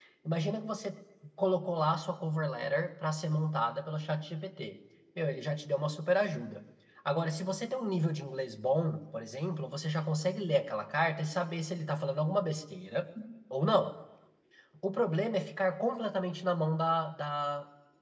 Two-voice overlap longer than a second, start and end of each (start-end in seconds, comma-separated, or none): none